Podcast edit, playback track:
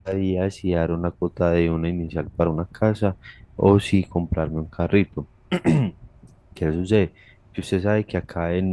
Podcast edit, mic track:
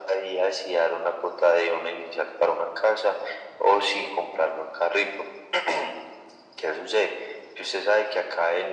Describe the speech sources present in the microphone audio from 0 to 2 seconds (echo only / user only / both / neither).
echo only